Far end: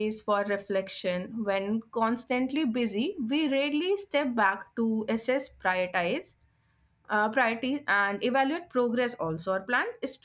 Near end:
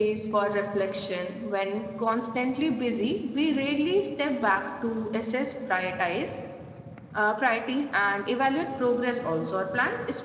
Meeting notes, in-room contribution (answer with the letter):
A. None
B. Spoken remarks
A